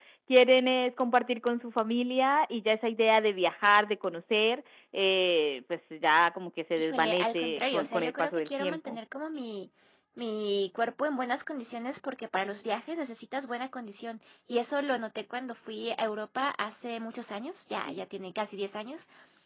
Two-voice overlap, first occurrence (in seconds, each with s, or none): 6.8 s